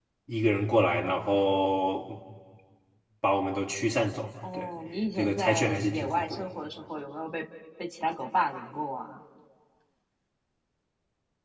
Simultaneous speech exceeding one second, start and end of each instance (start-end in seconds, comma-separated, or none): 5.2-6.4